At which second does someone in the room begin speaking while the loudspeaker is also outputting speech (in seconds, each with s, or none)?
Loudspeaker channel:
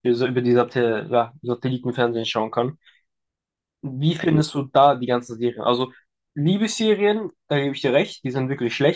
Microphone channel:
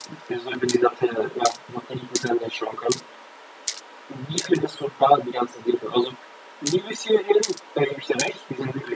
none